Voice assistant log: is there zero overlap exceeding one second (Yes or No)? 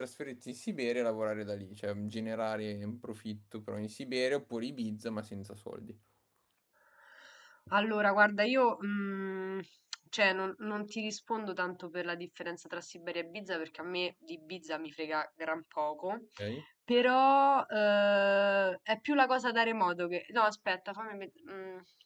Yes